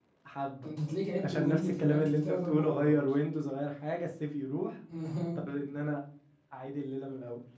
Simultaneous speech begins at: 1.2 s

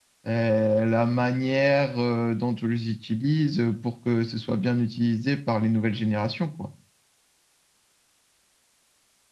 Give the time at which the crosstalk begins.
none

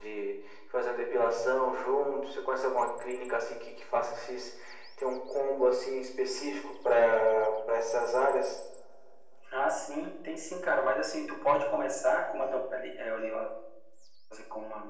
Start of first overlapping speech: none

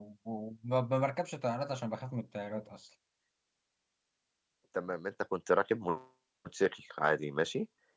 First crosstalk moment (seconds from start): none

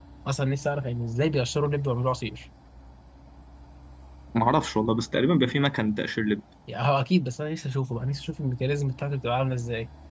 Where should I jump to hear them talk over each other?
none

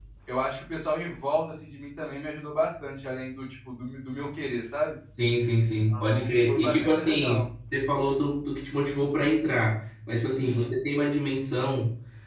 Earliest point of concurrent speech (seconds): 5.6 s

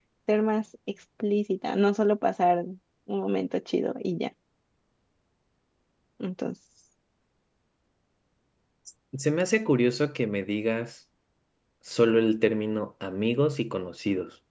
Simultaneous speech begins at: none

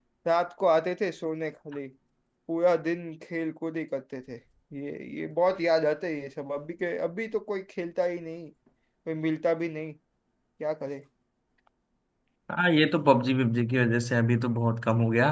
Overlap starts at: none

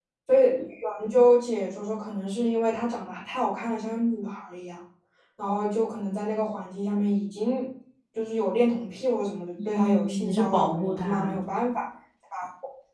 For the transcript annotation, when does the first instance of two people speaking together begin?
9.9 s

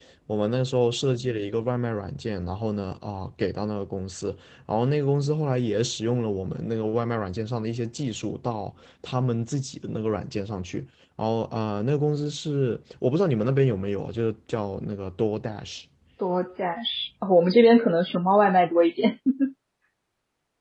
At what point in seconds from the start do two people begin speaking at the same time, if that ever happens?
none

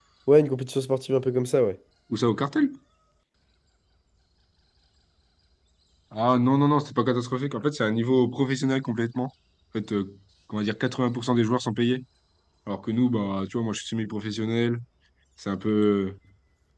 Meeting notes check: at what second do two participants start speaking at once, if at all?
none

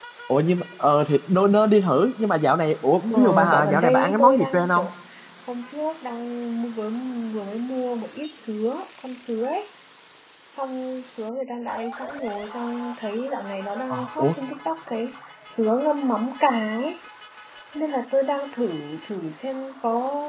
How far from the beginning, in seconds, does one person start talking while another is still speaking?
3.1 s

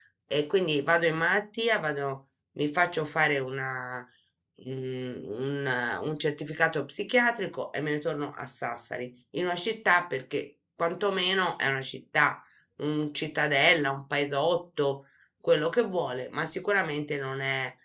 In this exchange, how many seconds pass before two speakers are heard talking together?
none

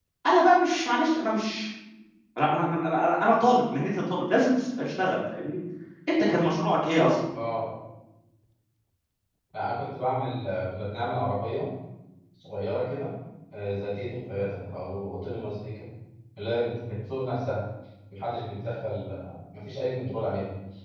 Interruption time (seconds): none

